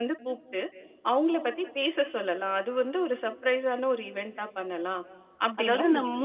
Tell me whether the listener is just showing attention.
No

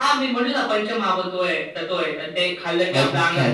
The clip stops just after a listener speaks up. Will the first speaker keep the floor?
No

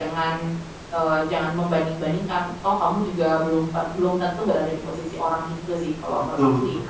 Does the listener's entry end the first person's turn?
Yes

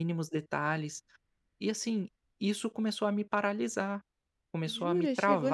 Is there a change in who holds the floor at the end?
Yes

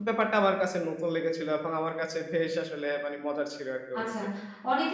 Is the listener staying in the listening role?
No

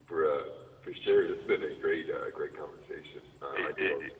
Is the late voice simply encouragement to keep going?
No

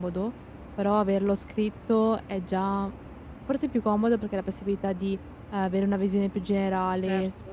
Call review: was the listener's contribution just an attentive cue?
Yes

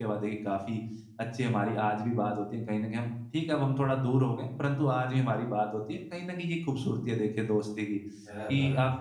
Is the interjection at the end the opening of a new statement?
No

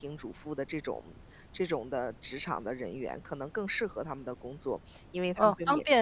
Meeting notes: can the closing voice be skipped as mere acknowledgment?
No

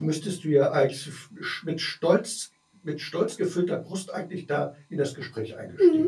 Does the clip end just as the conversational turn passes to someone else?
Yes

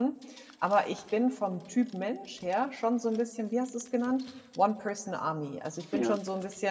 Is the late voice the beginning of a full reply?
No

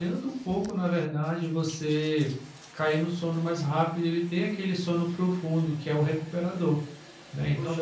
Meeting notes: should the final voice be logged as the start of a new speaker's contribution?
Yes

